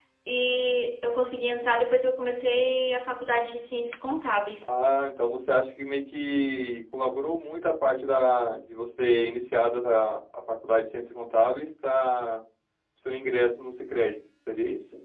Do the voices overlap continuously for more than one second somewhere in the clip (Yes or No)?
No